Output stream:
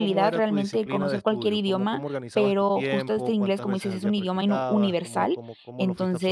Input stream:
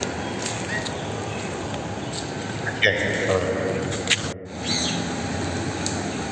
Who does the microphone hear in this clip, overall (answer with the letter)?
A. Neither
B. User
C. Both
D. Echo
B